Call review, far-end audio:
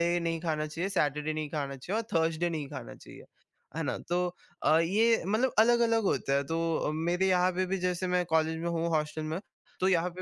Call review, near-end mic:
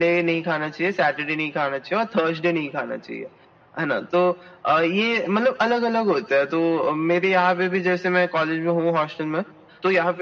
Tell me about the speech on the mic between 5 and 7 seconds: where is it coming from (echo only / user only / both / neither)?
echo only